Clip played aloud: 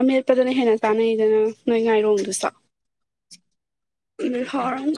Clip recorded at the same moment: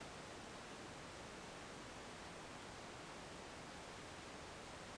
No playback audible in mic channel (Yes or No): Yes